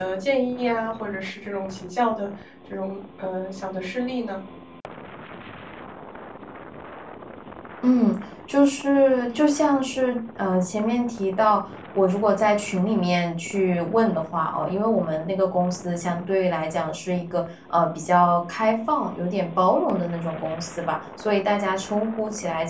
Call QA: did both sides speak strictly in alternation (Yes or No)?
Yes